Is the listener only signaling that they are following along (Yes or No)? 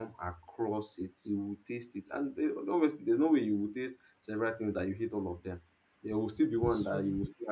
Yes